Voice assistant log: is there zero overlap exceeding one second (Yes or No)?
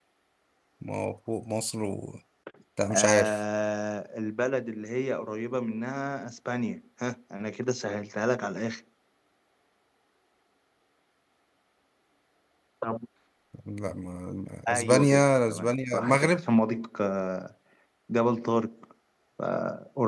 No